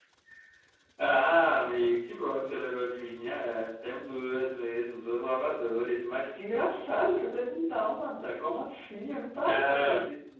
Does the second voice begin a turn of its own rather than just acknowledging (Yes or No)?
No